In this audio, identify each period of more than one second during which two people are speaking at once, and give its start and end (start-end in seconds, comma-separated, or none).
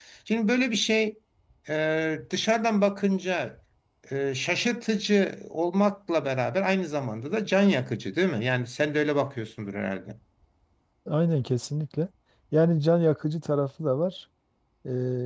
none